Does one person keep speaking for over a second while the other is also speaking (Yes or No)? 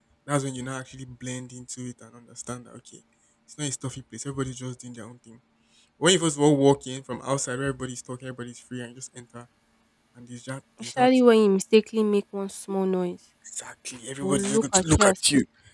Yes